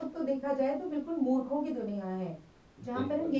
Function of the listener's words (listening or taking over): listening